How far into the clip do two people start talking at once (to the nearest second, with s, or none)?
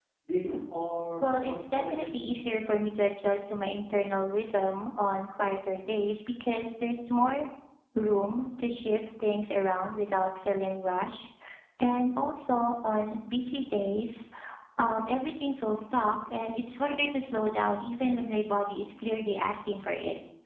1 s